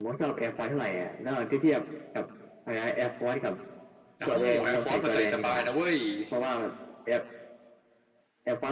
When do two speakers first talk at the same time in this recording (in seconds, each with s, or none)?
4.3 s